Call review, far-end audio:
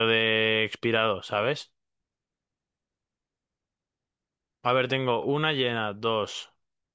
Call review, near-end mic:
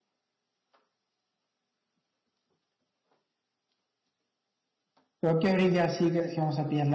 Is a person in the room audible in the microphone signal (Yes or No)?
Yes